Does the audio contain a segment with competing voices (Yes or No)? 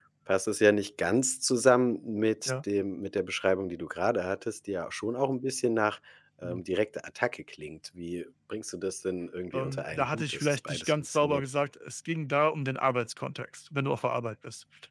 Yes